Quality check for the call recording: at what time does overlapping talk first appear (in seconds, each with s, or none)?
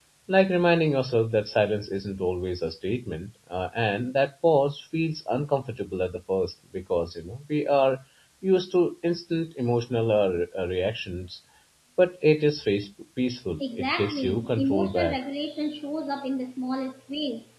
13.6 s